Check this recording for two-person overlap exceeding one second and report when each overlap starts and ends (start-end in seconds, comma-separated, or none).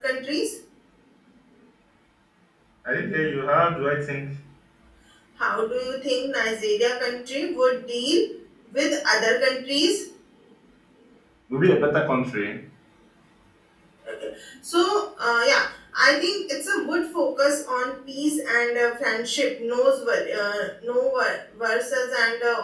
none